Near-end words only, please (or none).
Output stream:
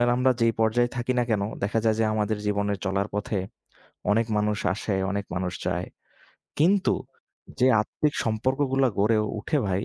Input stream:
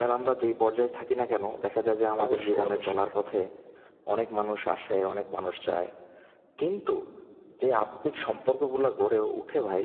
অবশ্যই, অবশ্যই।